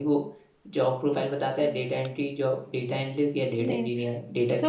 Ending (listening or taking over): taking over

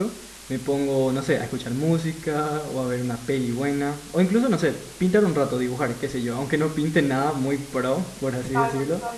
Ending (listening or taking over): taking over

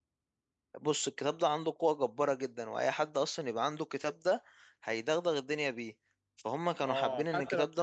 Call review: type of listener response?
taking over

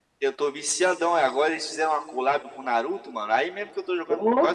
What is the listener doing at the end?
listening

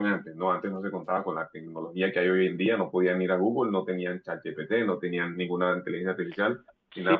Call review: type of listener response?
taking over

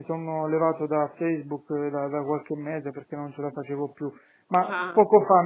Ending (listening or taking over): listening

